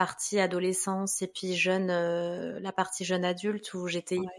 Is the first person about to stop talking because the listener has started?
No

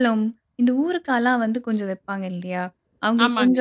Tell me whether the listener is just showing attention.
Yes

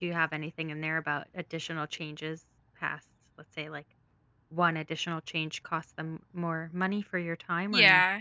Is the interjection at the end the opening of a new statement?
Yes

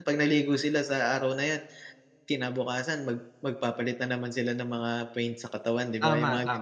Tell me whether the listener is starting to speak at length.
Yes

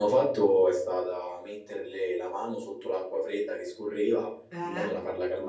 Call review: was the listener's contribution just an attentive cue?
Yes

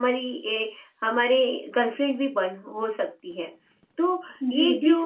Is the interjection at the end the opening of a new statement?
Yes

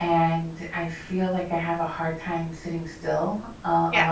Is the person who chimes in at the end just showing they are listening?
Yes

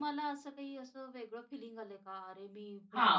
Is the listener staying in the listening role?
No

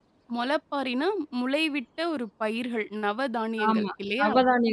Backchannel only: No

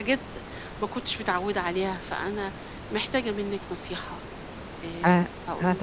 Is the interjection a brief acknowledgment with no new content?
No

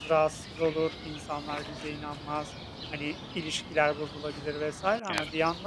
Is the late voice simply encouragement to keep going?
Yes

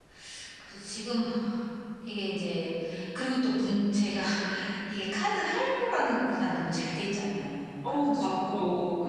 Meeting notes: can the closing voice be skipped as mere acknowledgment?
No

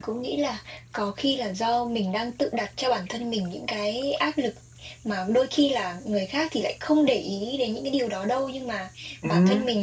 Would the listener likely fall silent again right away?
Yes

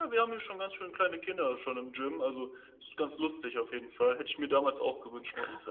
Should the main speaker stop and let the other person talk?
Yes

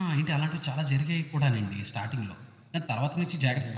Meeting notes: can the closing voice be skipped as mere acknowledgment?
No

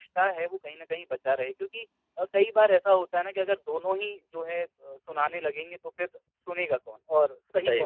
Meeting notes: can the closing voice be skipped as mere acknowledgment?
Yes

